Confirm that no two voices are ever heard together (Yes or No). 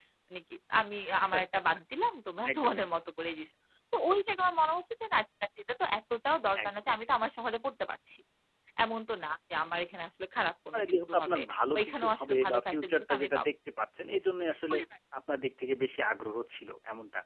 No